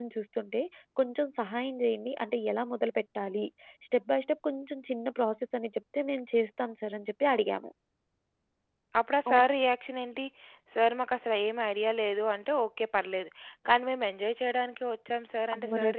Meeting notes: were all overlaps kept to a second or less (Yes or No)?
Yes